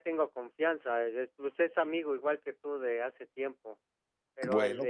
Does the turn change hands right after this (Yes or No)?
No